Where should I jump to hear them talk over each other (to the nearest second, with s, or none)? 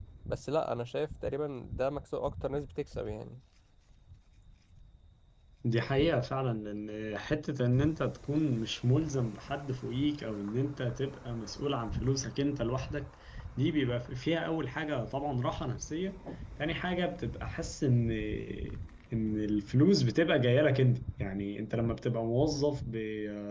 none